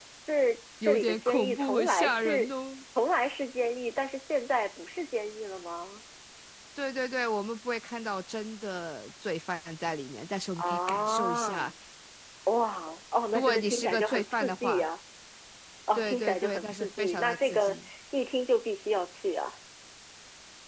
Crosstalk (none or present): present